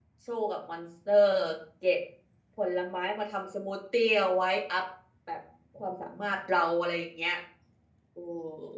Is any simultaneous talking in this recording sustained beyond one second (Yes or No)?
No